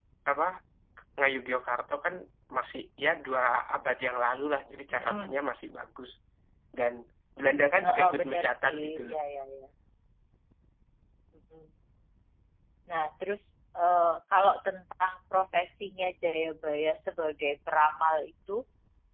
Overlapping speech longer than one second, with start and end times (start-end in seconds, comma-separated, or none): 7.8-9.2